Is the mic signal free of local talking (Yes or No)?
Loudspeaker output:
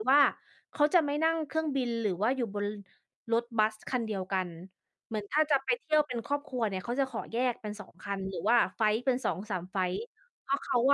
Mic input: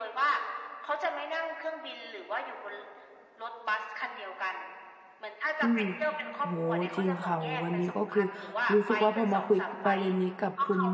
No